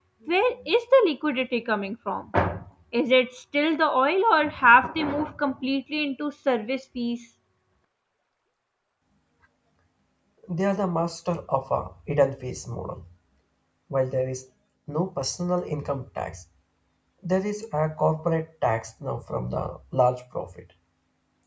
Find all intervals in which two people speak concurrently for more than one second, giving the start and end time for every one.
none

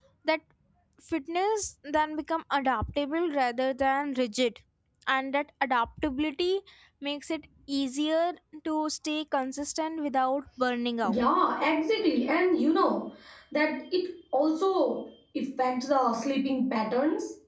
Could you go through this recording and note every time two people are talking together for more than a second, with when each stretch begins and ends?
none

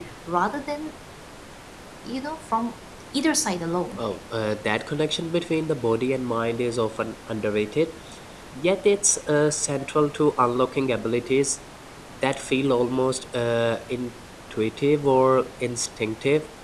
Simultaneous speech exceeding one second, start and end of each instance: none

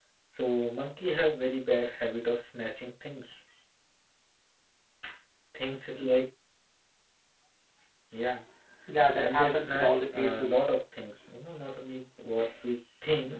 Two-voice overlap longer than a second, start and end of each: 9.2-10.5

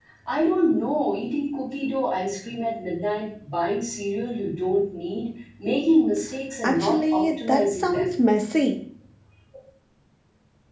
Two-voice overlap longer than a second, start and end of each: 6.6-8.1

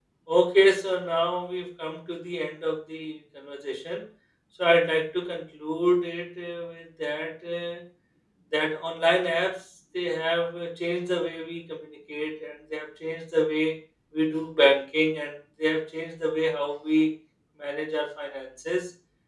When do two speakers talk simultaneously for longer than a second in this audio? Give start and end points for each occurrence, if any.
none

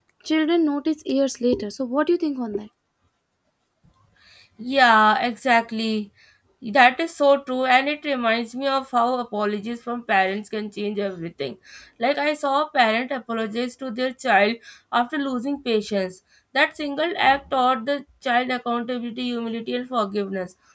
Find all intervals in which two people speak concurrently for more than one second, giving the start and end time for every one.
none

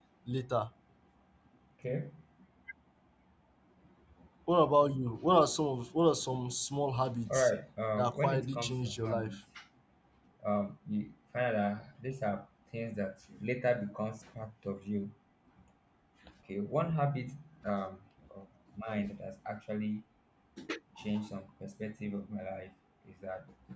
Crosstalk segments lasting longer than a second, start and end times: 8.0-9.4

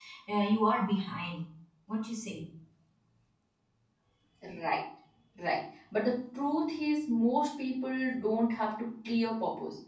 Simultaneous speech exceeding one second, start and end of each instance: none

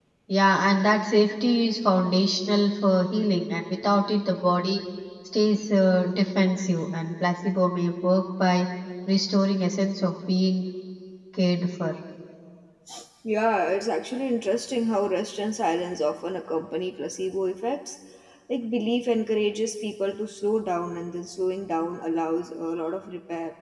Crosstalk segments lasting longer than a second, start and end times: none

